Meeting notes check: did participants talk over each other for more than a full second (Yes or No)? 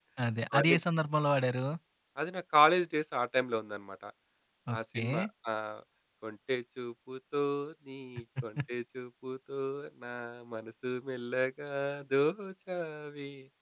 No